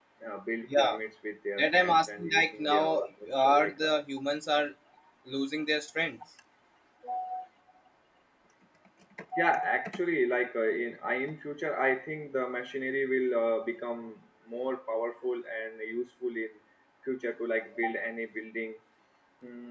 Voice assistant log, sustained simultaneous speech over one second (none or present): present